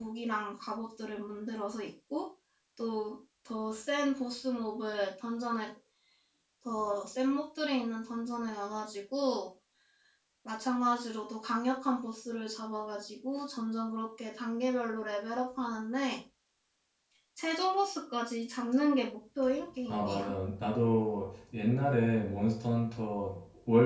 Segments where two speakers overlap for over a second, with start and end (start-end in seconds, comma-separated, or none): none